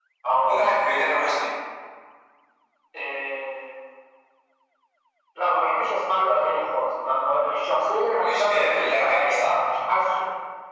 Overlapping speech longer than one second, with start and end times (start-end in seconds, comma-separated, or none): 8.2-9.6